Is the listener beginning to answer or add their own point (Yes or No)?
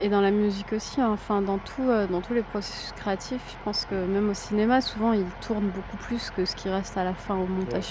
Yes